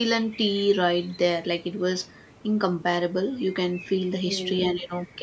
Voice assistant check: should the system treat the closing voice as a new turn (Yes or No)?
No